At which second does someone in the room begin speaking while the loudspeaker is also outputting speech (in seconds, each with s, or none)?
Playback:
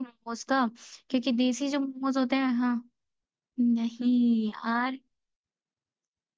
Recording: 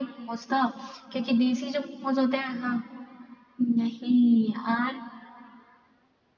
none